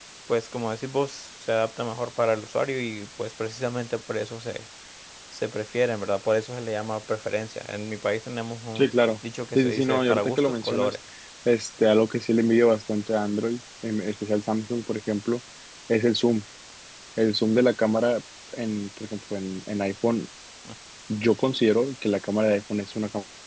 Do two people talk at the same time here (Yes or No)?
Yes